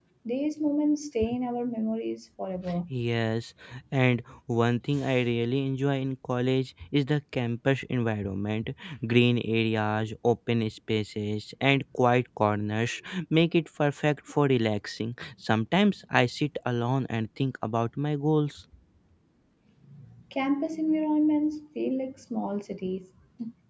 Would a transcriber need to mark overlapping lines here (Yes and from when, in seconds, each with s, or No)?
No